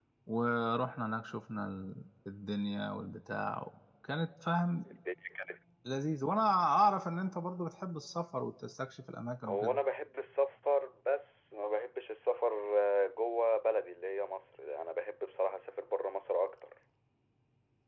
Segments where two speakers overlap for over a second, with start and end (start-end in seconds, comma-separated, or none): none